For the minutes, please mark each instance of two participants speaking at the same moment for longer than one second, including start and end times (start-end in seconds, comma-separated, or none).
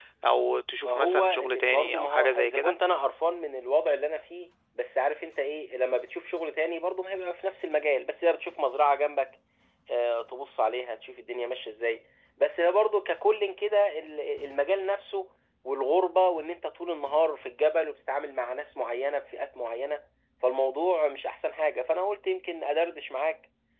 0.8-2.7